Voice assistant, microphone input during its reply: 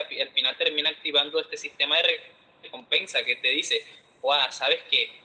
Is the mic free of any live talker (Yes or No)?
Yes